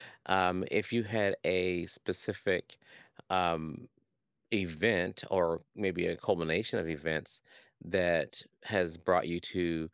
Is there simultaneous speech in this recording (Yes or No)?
No